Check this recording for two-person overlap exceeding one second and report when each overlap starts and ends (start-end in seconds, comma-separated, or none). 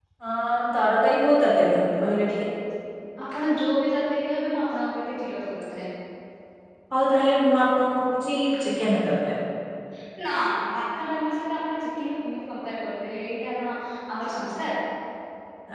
none